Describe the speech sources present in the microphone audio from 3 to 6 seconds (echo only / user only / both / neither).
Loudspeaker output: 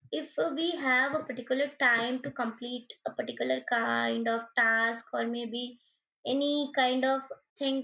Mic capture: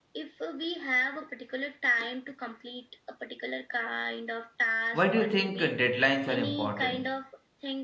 both